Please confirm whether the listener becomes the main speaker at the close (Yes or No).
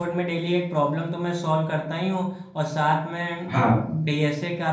No